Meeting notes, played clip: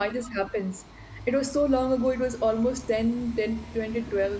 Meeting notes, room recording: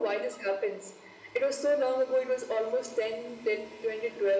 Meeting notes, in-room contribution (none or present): none